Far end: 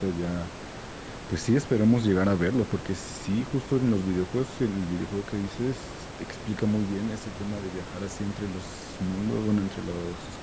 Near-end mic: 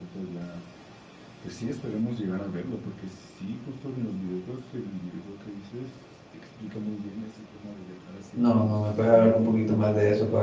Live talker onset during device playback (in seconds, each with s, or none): 8.3 s